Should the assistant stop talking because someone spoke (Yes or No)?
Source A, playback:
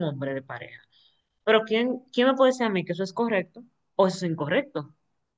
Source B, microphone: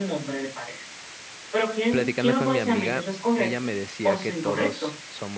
Yes